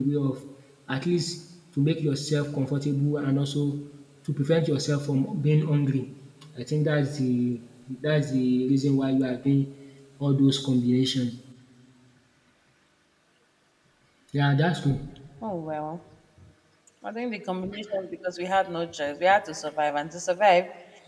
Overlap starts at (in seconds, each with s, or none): none